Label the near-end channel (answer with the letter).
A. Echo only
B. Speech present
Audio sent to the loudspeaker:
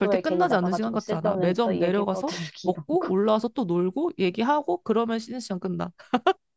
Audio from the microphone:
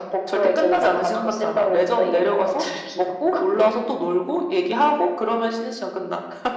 A